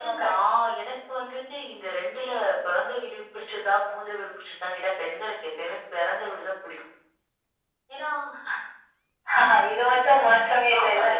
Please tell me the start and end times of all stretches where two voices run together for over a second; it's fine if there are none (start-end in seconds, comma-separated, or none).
none